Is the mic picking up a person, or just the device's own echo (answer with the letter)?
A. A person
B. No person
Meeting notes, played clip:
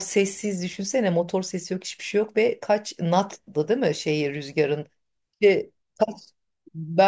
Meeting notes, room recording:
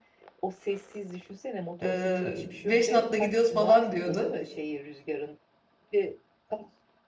A